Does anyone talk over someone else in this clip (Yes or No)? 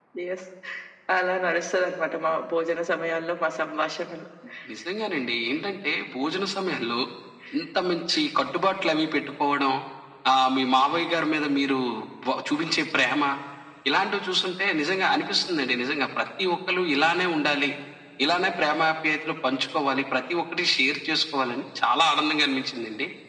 No